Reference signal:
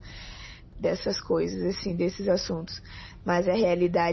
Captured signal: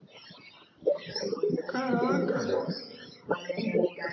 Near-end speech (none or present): present